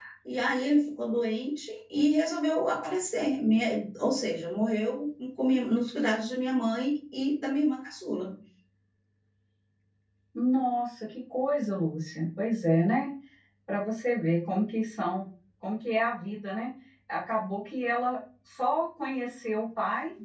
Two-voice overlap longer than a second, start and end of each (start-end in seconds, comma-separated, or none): none